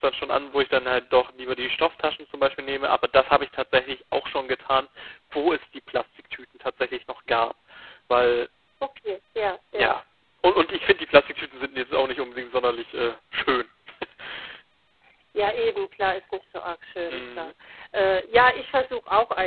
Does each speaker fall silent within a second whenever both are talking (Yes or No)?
Yes